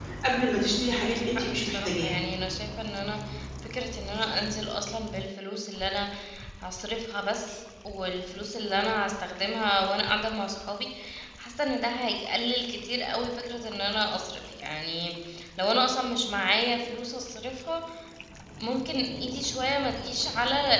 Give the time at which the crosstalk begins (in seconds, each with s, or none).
0.9 s